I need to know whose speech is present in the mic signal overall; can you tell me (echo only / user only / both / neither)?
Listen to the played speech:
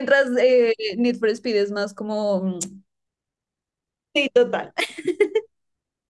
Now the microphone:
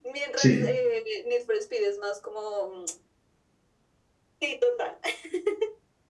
both